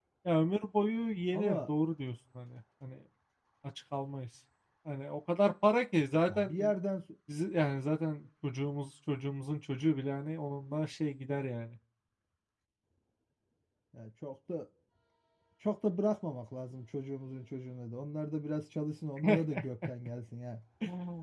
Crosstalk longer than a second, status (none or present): none